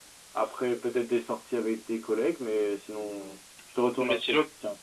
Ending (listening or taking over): taking over